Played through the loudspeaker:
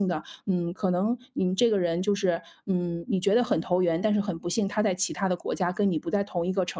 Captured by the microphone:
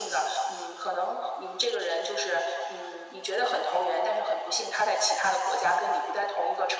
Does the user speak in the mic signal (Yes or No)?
No